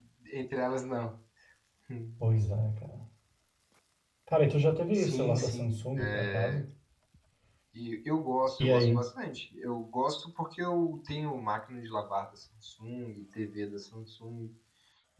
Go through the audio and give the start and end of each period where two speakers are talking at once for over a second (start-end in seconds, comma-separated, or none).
4.9-6.6